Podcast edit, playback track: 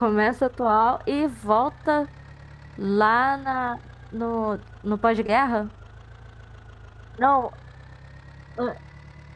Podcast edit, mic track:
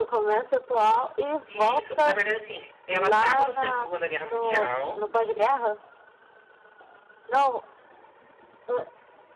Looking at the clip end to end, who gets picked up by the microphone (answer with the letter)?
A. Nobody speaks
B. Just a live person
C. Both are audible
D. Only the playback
C